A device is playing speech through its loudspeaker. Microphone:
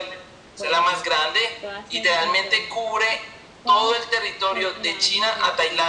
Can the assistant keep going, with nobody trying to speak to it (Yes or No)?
No